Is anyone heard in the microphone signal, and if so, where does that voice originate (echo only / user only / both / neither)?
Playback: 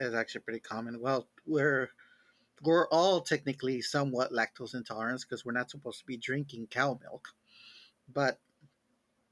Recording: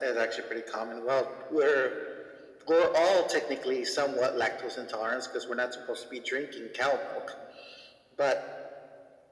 echo only